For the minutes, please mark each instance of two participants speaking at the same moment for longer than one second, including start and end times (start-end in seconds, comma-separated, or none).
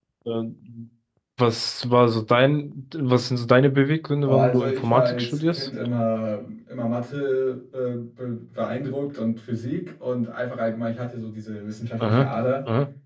4.2-5.7